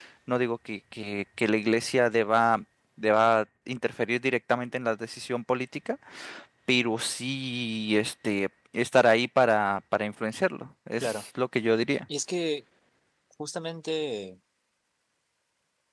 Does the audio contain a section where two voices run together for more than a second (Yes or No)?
No